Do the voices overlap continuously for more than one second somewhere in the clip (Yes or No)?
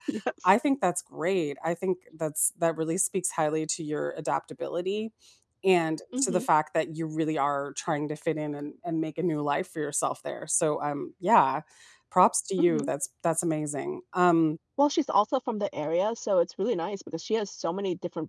No